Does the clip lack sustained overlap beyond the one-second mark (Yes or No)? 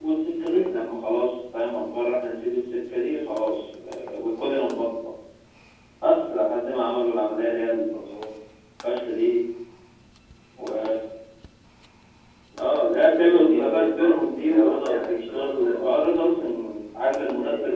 No